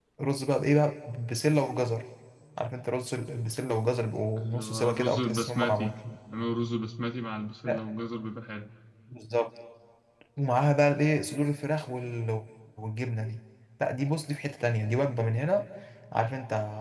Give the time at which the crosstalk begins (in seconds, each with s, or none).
4.4 s